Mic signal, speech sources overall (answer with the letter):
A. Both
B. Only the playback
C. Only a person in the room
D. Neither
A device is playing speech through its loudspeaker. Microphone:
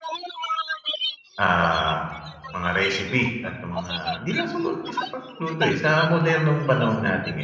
A